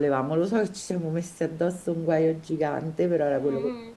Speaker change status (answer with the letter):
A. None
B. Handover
B